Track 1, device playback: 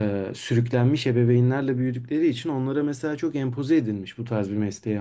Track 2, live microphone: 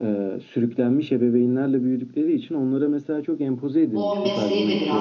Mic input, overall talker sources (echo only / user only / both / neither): both